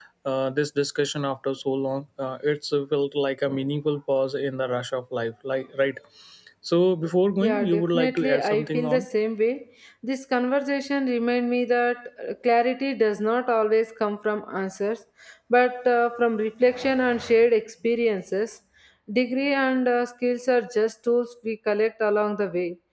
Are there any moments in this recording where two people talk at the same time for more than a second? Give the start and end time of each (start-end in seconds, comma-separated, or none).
7.4-9.1